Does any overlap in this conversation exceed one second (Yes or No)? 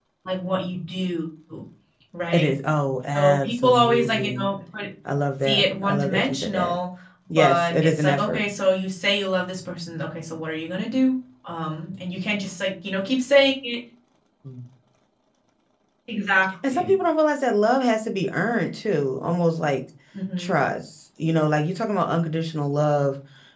Yes